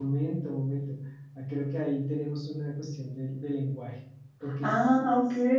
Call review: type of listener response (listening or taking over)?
taking over